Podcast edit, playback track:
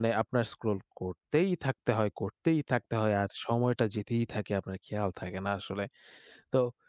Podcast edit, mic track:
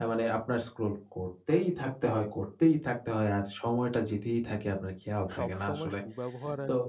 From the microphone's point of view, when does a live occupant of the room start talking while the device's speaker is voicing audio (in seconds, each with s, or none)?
5.4 s